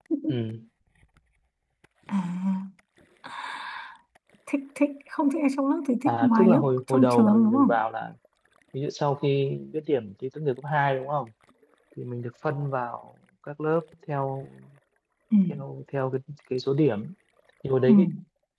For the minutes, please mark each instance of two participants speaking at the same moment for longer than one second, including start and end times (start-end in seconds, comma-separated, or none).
6.1-7.8